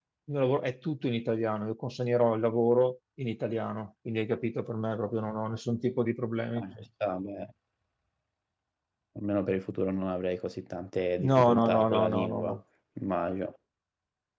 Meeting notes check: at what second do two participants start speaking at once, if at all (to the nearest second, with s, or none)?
11 s